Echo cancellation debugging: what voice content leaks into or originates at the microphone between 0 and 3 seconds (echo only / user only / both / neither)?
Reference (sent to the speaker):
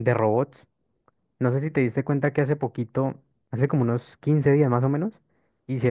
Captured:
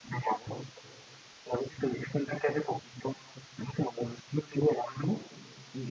echo only